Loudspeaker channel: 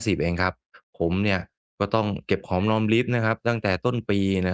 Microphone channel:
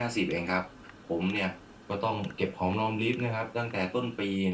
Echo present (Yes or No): Yes